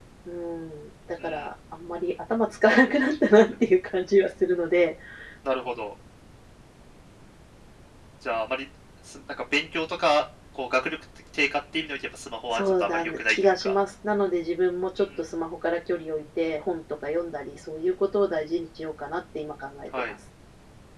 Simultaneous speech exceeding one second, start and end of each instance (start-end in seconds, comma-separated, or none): 12.5-13.8